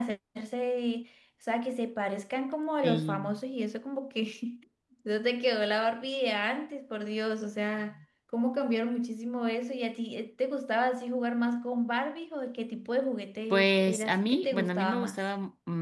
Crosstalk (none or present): present